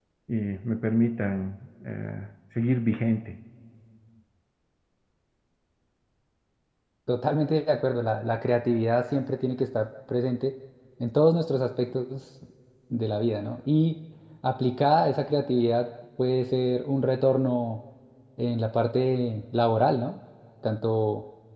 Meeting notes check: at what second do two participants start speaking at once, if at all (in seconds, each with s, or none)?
none